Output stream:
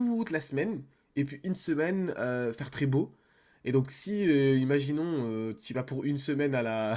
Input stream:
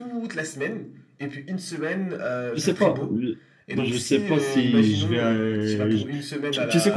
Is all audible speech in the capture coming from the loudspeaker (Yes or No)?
No